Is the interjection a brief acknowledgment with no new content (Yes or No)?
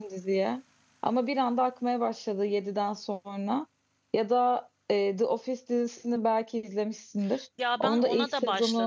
No